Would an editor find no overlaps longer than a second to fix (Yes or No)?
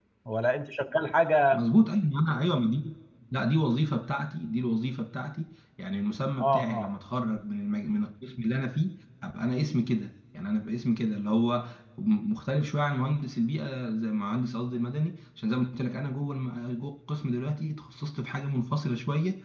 Yes